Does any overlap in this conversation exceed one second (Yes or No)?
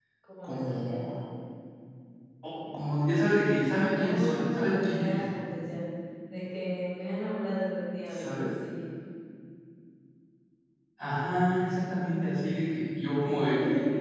Yes